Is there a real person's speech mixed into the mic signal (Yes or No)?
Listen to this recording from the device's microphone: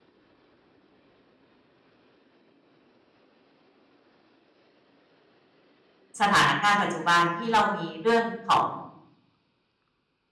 Yes